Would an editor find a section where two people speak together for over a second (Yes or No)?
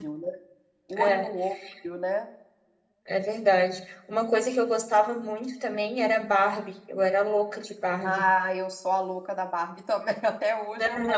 No